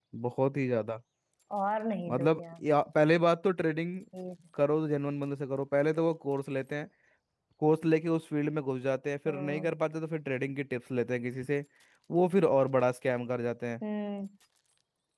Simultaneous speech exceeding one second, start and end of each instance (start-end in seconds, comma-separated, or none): none